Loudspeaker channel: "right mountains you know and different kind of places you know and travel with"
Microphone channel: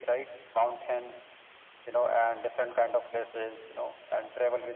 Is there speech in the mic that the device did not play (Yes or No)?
No